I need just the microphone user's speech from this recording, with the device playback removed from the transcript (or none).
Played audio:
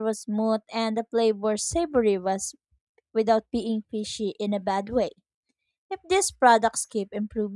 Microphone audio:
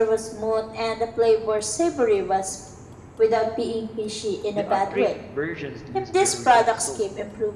the upgraded versions lose their original soul.